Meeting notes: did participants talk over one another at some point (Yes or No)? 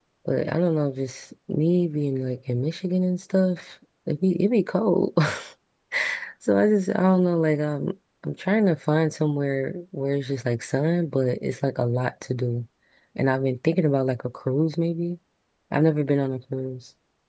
No